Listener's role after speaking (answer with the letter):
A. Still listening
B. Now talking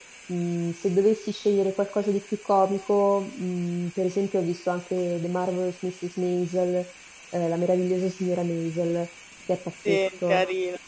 B